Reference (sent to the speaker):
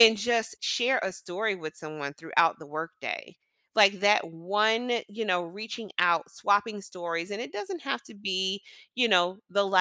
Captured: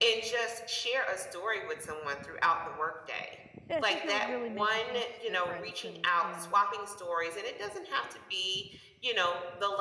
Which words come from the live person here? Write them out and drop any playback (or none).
yeah, i think it would really make a huge difference and and